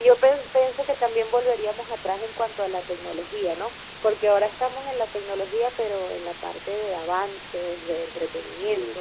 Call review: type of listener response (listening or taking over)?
listening